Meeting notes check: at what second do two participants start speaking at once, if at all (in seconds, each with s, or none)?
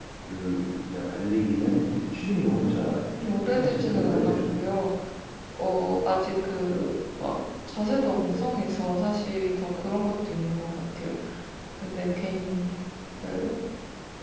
3.2 s